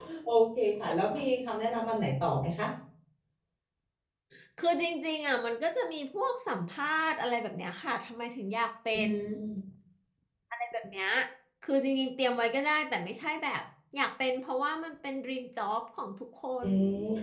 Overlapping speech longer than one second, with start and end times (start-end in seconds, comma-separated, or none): none